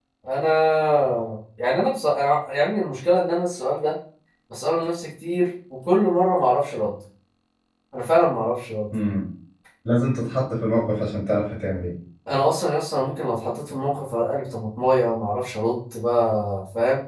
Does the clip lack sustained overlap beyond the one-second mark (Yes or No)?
Yes